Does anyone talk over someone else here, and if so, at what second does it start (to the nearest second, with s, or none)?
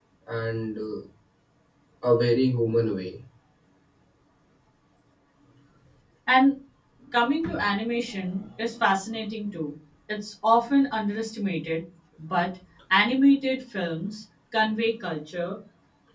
none